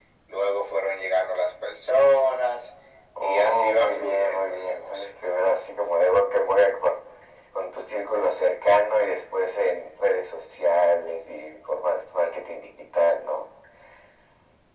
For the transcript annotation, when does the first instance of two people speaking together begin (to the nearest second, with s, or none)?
3 s